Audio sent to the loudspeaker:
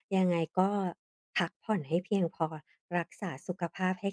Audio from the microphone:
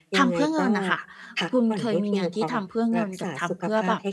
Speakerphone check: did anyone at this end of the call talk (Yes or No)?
Yes